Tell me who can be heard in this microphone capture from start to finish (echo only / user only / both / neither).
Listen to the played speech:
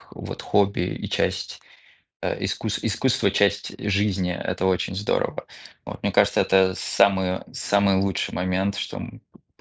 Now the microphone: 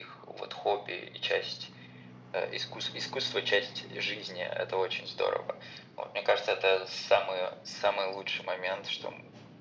echo only